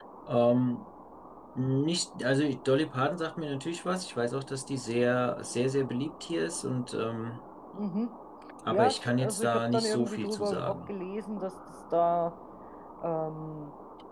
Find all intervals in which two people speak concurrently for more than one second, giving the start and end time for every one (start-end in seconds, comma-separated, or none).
8.7-10.8